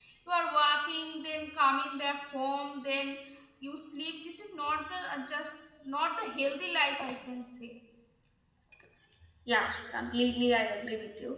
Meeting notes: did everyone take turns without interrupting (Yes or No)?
Yes